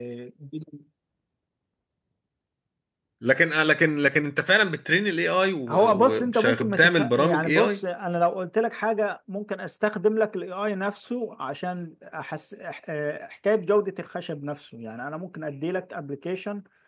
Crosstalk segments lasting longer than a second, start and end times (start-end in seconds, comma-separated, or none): 5.7-7.8